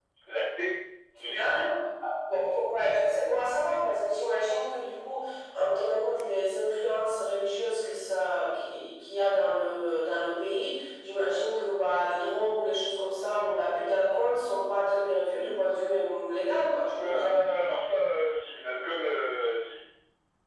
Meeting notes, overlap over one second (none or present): none